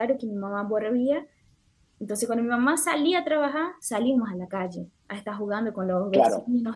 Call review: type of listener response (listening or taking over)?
listening